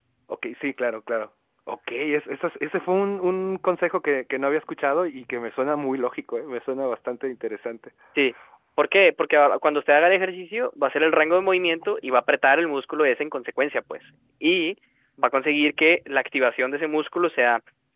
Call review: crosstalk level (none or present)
none